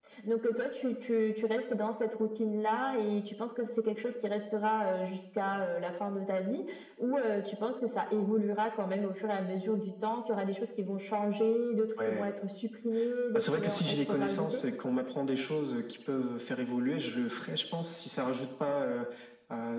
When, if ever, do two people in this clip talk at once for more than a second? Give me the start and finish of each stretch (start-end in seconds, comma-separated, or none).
13.3-14.6